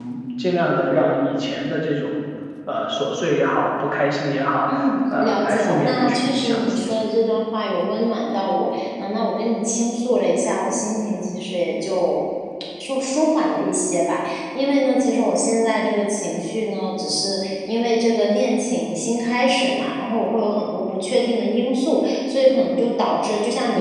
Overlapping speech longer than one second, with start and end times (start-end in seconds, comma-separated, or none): 5.2-7.0